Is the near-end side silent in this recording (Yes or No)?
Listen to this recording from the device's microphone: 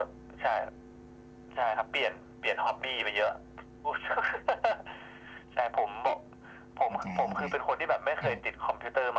No